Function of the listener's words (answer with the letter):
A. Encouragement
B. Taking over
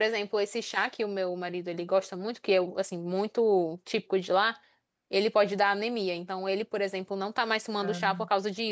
A